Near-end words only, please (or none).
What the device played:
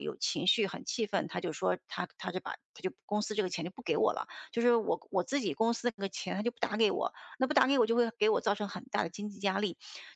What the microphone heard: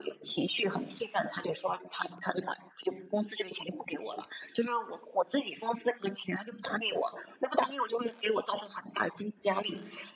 none